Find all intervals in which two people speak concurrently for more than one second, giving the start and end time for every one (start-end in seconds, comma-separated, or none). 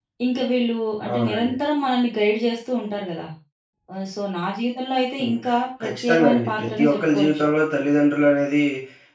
5.8-7.4